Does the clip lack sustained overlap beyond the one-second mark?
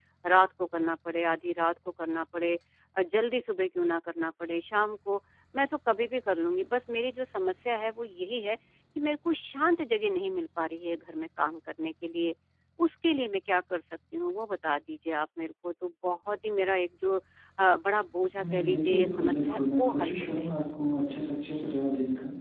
No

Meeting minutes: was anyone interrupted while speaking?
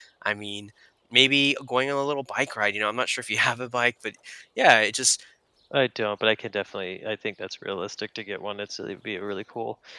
No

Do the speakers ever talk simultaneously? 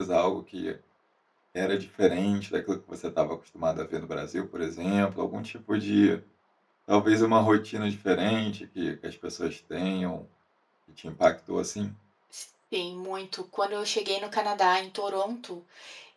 No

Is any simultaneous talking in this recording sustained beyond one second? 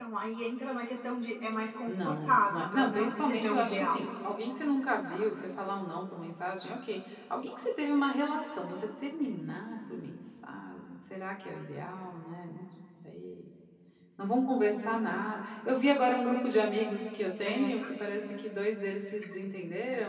Yes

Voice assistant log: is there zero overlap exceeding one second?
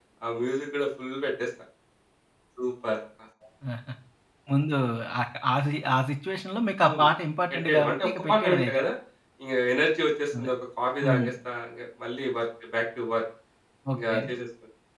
No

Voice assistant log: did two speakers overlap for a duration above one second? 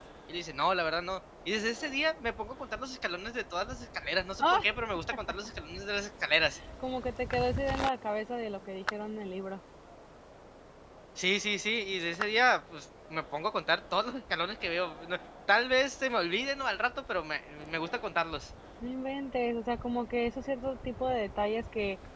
No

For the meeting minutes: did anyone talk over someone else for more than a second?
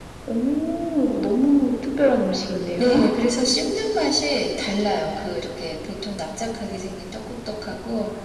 No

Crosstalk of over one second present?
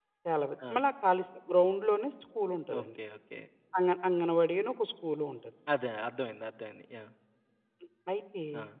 No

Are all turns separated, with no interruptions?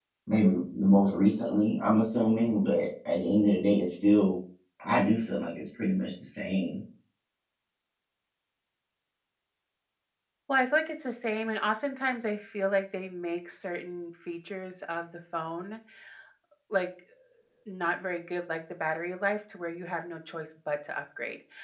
Yes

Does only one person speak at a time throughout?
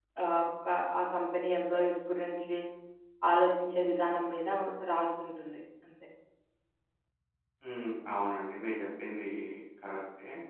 Yes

